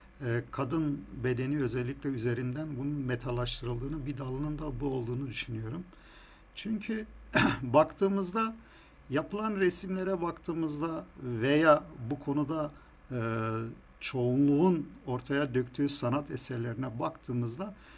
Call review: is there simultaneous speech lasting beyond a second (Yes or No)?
No